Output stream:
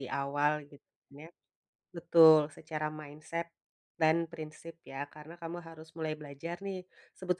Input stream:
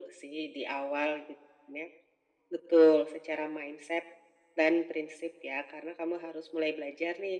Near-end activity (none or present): none